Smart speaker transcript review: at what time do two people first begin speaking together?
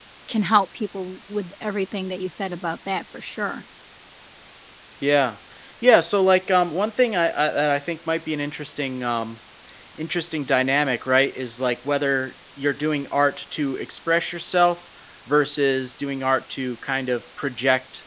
none

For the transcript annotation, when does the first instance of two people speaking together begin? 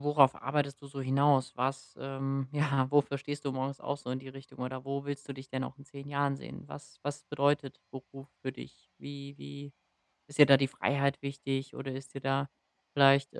none

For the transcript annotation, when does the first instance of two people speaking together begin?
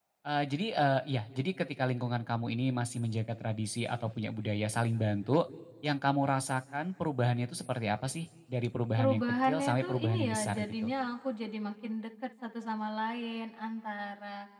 9 s

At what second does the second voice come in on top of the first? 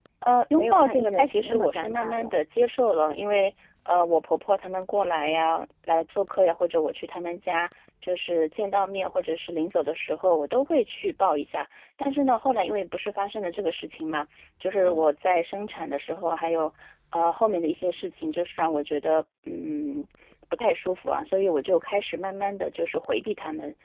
1 s

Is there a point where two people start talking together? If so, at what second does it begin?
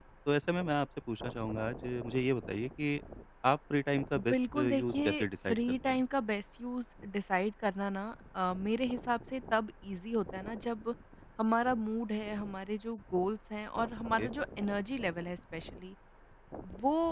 4 s

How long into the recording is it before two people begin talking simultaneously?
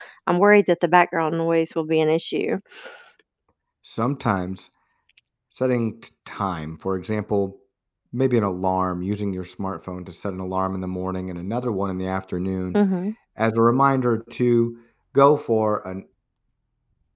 none

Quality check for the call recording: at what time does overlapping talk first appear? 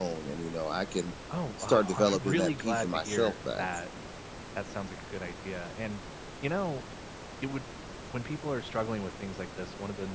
2 s

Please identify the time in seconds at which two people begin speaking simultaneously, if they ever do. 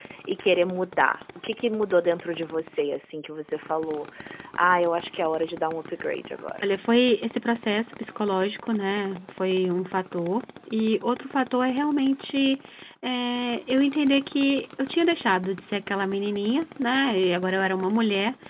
none

